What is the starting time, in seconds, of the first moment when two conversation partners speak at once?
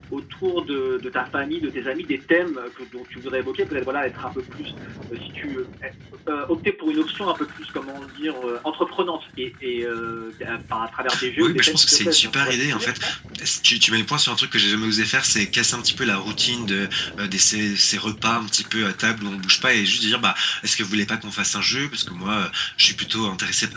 11.4 s

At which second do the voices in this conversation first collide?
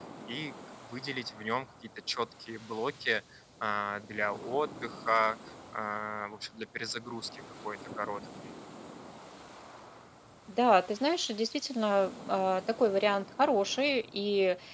none

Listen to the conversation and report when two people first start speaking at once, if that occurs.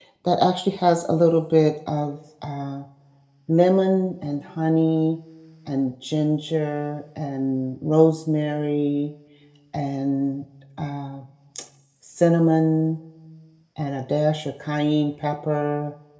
none

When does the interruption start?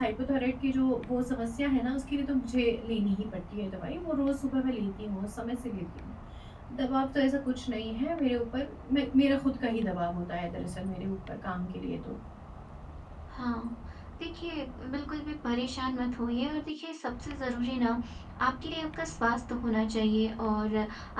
none

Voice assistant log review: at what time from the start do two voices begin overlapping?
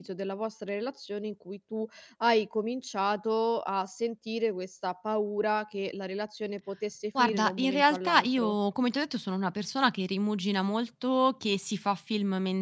7.2 s

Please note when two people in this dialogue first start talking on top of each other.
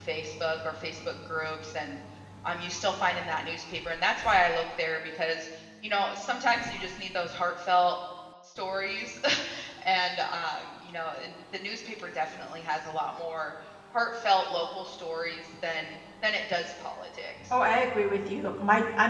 none

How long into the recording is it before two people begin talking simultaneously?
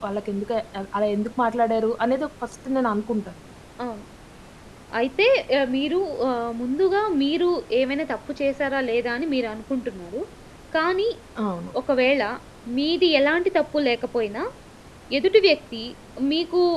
none

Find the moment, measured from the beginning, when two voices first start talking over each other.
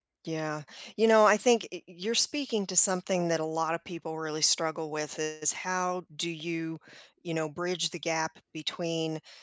none

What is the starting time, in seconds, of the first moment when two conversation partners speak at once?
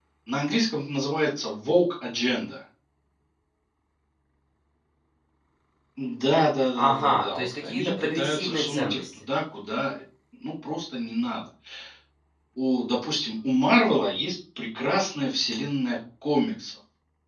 6.8 s

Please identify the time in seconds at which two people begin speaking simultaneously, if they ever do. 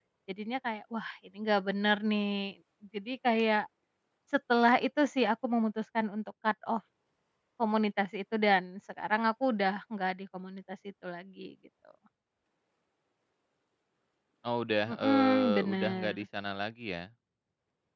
14.9 s

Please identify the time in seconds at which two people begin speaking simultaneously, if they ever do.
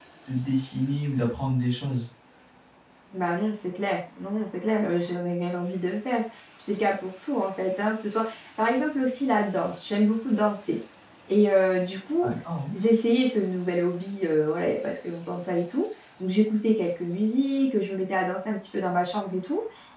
none

